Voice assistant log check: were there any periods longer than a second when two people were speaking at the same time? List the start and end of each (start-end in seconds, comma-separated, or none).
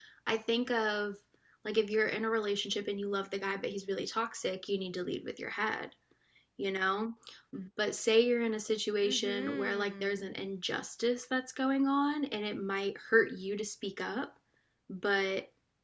9.0-10.5